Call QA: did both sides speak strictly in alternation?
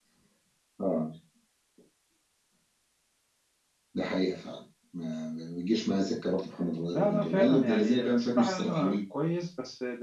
No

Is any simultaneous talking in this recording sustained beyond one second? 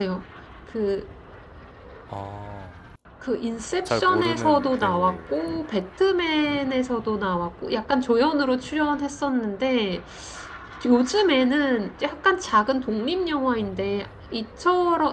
Yes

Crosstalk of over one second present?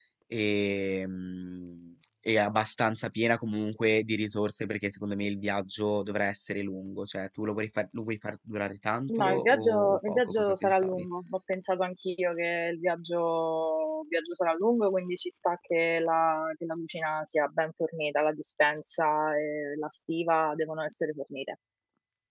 Yes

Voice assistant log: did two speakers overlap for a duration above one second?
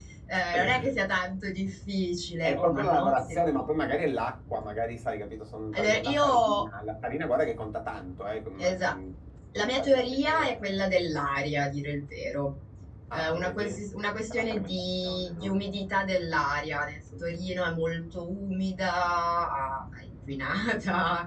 Yes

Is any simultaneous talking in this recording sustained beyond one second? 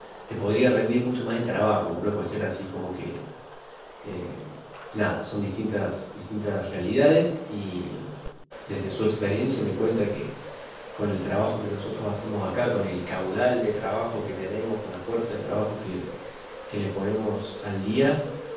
No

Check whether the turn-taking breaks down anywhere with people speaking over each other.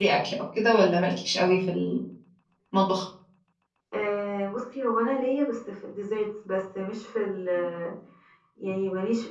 No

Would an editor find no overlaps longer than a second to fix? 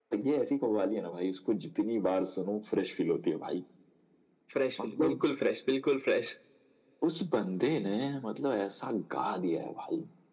Yes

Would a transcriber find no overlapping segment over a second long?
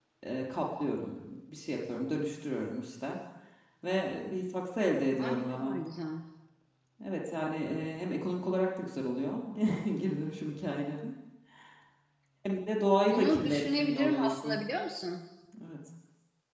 No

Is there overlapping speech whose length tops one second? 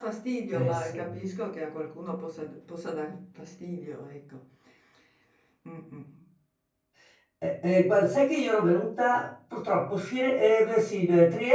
No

